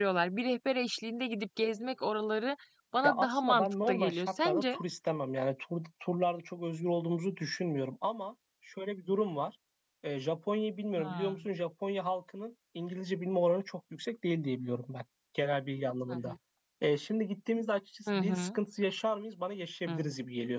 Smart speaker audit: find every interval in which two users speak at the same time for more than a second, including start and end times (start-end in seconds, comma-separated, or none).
3.0-4.8